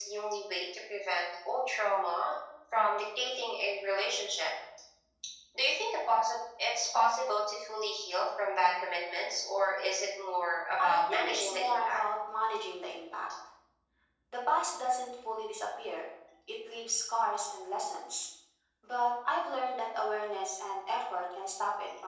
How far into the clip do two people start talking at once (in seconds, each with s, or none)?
10.8 s